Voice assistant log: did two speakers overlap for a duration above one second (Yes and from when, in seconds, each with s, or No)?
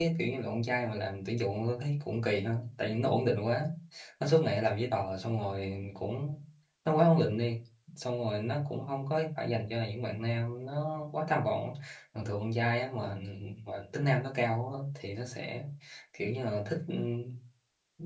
No